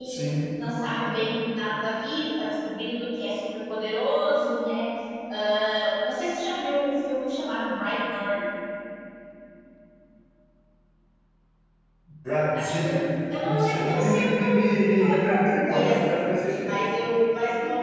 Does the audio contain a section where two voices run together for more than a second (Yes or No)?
Yes